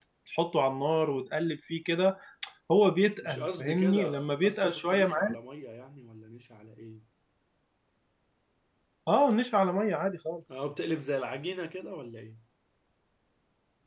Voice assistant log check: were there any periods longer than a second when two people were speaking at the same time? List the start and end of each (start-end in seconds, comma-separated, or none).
3.2-5.4